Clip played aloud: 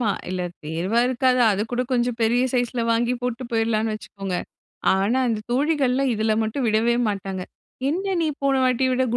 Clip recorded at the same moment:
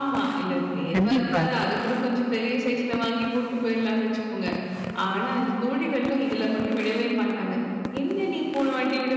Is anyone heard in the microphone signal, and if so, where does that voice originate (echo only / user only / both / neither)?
both